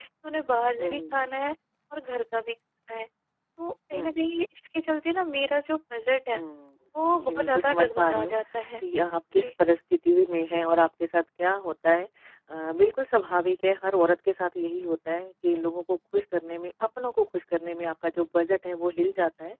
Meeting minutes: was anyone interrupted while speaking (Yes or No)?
Yes